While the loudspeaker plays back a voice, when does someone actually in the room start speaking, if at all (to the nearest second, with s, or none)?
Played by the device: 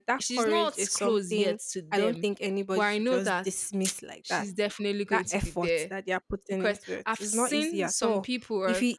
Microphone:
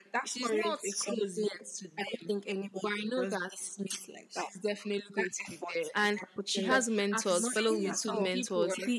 6 s